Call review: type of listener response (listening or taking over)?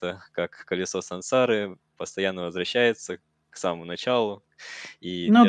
listening